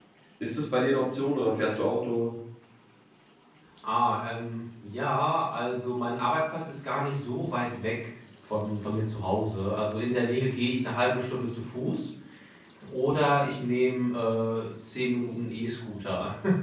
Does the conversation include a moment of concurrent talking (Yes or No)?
No